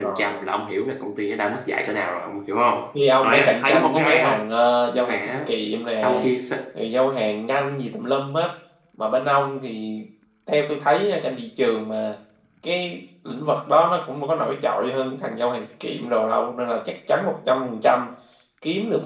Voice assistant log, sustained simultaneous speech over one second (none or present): present